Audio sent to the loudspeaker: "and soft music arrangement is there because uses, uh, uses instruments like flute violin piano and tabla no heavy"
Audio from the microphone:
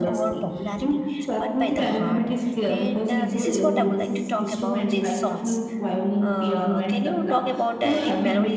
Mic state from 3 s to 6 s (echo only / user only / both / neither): both